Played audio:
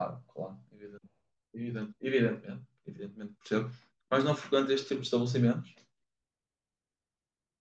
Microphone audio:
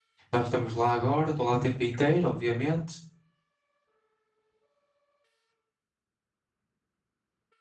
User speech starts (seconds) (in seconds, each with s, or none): 0.3 s